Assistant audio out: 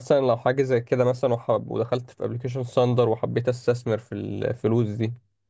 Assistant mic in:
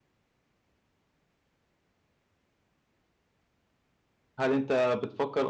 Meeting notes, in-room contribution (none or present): present